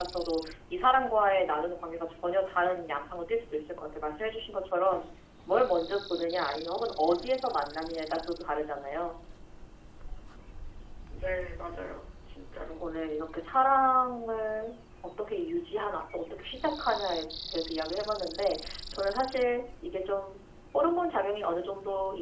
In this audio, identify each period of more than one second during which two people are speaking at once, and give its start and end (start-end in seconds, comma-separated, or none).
none